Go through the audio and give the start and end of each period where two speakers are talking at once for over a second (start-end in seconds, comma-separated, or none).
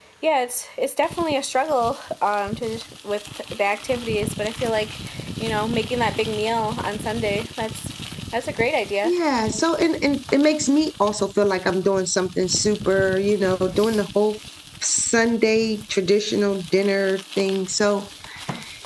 none